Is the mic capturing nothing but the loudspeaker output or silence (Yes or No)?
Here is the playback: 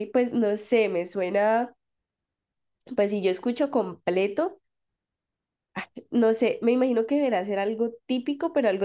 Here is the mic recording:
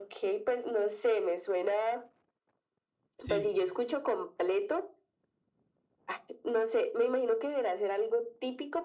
No